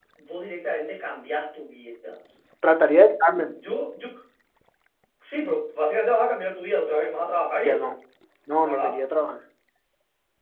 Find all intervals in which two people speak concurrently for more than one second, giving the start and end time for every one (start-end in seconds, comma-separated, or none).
none